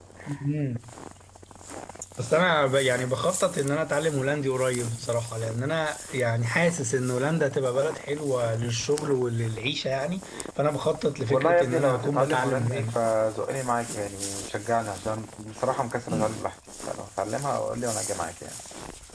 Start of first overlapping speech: 11.3 s

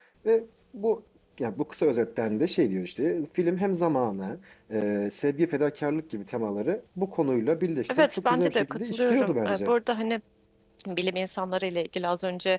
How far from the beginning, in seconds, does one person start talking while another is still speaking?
7.9 s

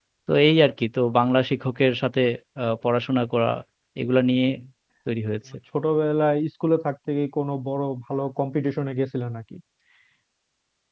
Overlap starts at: none

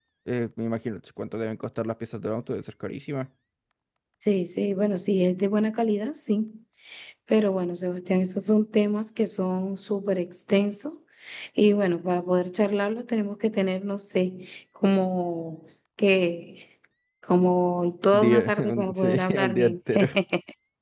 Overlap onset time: 18.1 s

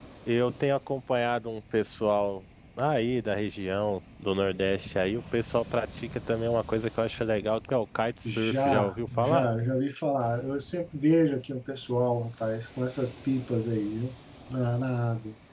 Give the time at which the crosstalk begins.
8.2 s

